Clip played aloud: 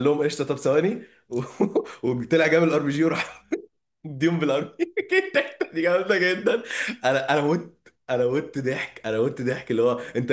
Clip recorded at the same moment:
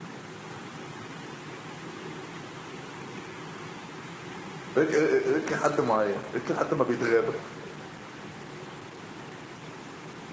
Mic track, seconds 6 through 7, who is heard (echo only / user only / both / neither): user only